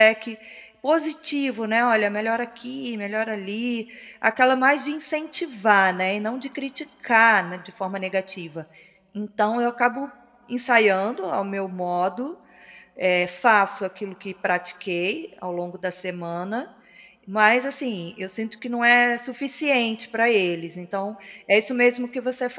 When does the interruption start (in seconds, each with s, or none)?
none